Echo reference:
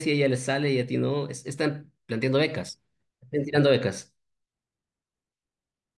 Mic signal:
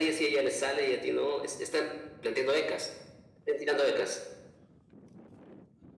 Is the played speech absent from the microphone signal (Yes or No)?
No